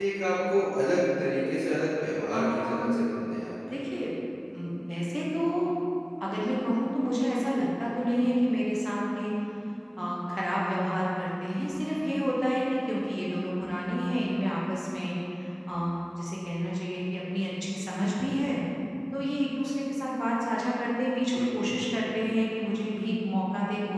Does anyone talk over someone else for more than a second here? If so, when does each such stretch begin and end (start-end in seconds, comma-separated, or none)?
none